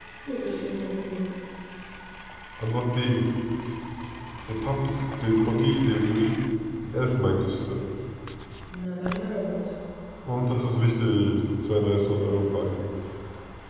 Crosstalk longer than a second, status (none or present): none